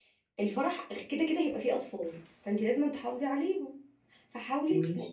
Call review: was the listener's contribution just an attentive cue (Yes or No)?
Yes